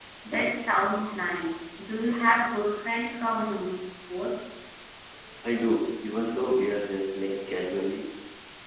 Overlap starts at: none

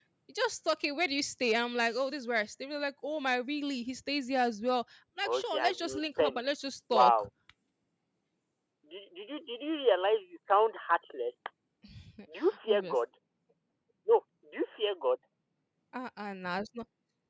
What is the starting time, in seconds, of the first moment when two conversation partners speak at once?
5.2 s

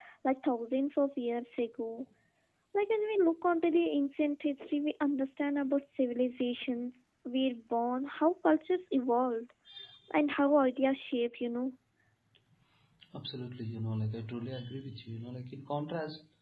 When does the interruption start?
none

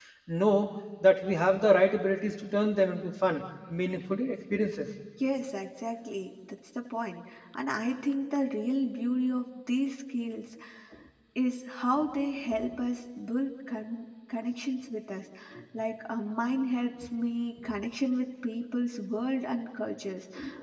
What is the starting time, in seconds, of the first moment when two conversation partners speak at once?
none

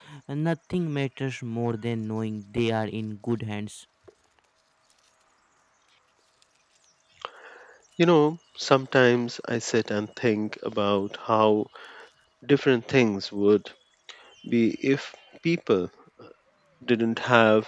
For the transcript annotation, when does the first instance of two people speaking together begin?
none

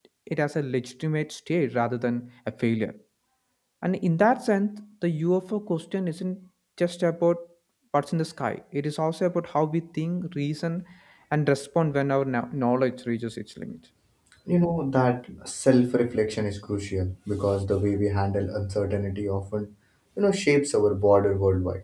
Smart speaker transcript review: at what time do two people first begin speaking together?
none

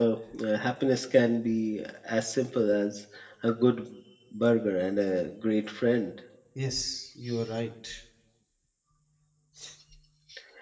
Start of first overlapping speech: none

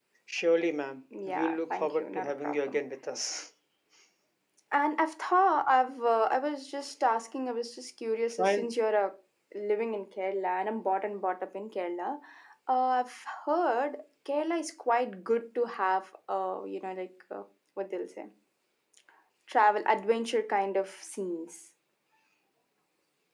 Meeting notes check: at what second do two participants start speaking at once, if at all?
1.2 s

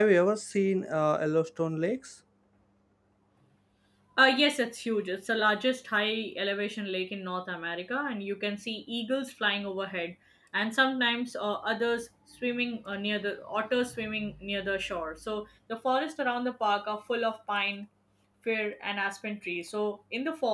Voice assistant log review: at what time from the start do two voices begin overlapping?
none

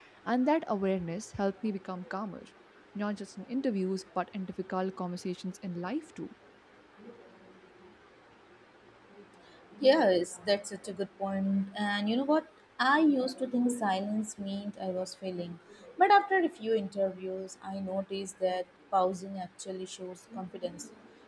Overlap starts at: none

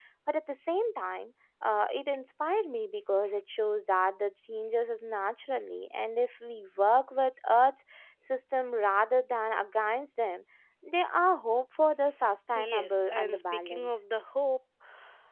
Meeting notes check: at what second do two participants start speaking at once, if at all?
12.5 s

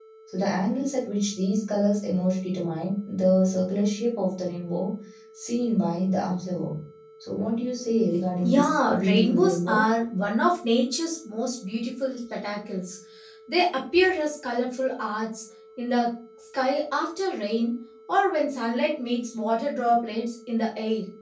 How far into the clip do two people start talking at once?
8.4 s

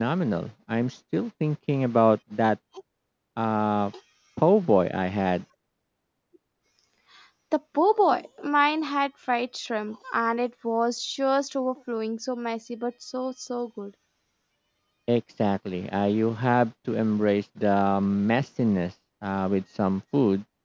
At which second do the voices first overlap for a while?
none

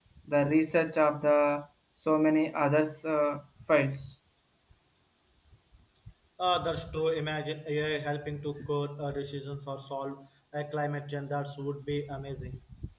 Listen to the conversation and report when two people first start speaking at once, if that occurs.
none

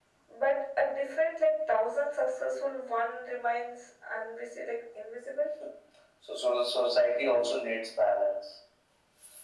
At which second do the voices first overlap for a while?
none

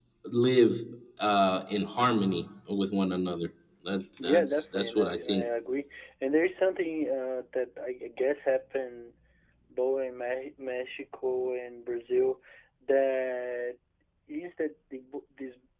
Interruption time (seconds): 4.2 s

